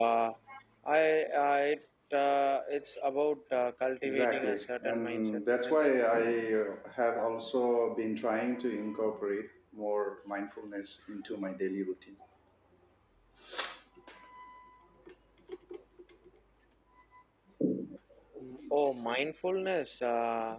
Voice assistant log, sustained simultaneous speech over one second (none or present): present